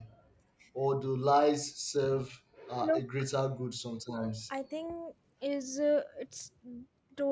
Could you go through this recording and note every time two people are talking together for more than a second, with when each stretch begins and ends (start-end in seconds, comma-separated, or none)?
none